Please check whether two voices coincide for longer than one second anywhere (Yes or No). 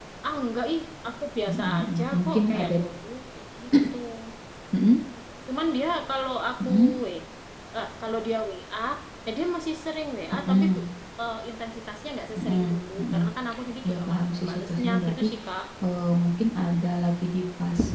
Yes